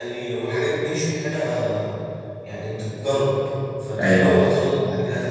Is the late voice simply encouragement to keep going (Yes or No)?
Yes